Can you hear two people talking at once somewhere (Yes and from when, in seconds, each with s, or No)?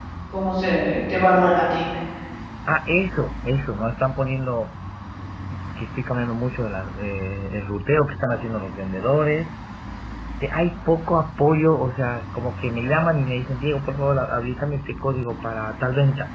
No